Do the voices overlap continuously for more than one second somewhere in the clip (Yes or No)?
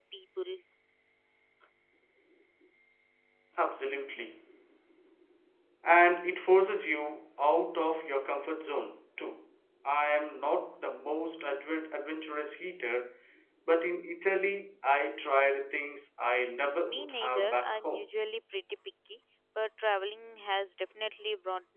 Yes